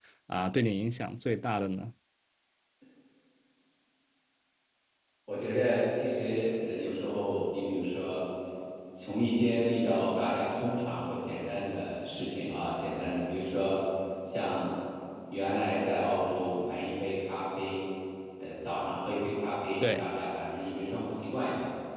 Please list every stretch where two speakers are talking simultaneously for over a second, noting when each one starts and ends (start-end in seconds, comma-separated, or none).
none